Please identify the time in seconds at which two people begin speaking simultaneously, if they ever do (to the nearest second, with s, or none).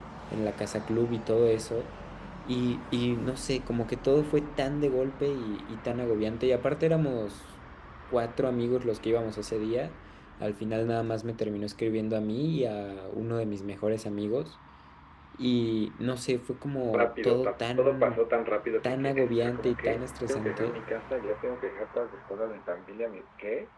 17 s